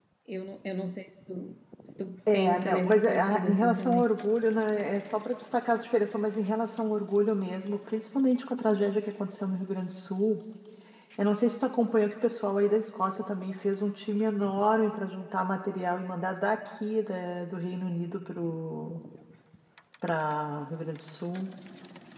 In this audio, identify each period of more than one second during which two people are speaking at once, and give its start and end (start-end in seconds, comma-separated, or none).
2.3-4.0